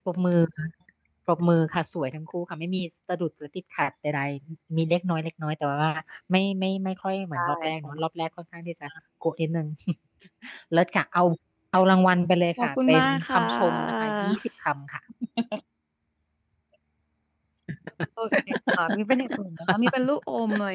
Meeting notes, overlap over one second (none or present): present